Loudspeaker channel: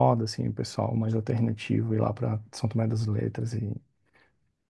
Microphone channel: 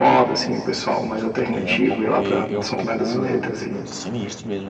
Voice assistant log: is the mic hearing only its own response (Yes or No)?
No